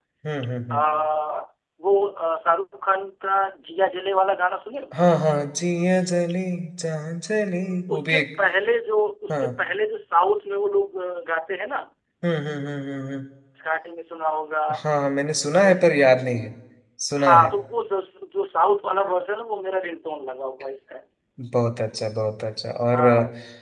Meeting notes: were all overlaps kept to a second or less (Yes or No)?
Yes